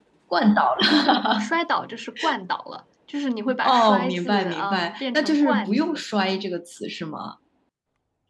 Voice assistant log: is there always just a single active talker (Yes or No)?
No